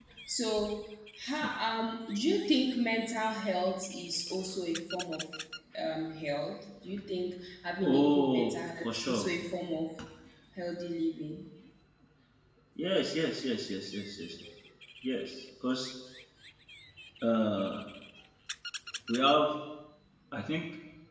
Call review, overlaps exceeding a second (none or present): present